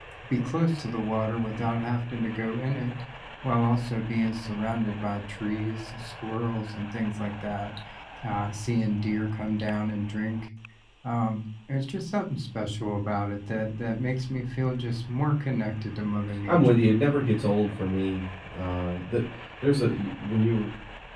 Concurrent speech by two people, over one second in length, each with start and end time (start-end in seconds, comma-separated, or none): none